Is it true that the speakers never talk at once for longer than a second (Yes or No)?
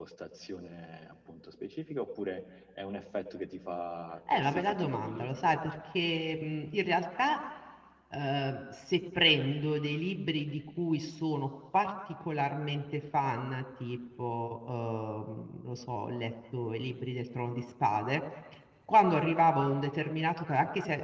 No